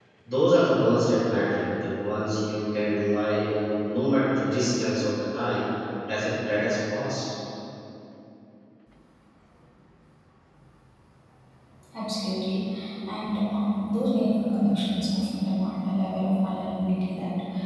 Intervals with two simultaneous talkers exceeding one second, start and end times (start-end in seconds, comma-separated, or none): none